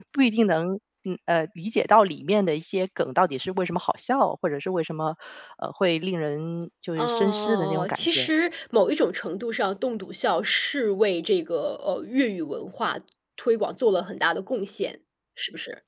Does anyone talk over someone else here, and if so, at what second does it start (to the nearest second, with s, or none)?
7 s